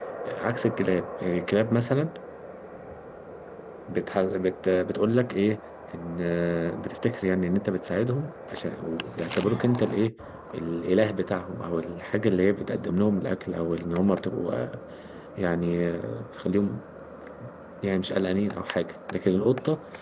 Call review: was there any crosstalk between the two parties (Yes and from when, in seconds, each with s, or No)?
No